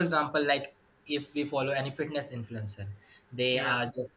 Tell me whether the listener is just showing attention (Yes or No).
Yes